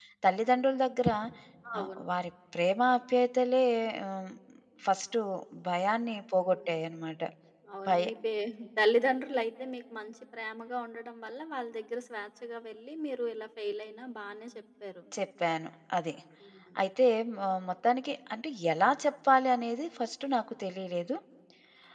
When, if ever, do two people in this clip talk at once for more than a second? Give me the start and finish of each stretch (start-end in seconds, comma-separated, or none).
none